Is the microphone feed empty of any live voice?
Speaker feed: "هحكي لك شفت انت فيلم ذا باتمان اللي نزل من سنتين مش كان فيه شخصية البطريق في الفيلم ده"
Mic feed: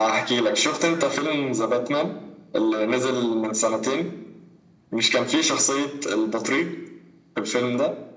Yes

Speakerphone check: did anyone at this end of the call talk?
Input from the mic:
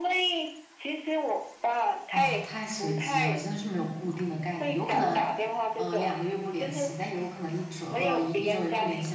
Yes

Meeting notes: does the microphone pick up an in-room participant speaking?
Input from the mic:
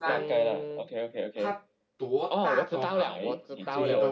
Yes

